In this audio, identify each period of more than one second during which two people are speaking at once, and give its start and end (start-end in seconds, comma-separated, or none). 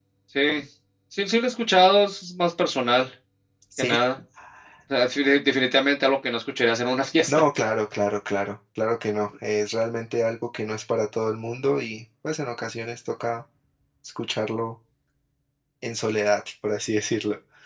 none